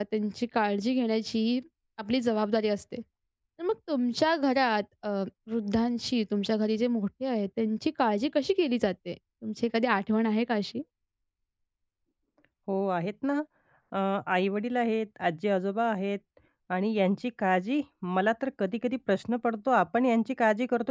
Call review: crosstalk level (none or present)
none